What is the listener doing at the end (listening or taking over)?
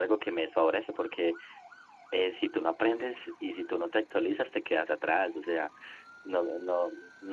listening